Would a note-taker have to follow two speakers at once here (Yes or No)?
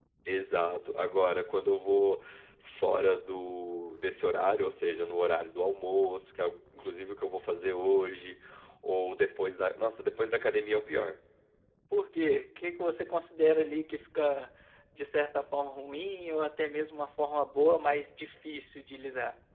No